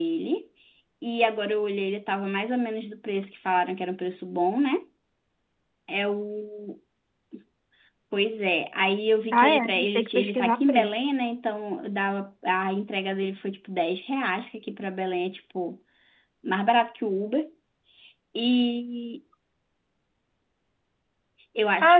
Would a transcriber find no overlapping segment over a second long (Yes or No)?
No